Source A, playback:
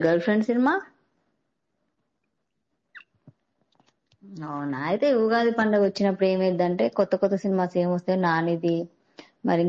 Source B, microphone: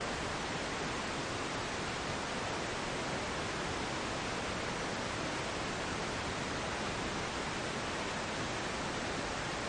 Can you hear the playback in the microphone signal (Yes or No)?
No